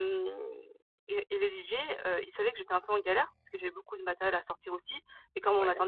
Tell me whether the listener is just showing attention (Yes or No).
Yes